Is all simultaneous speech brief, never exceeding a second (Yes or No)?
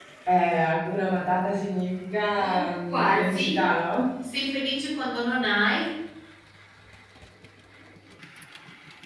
No